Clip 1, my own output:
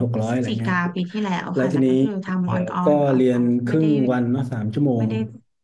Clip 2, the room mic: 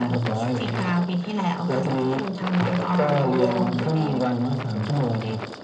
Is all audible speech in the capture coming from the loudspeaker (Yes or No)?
No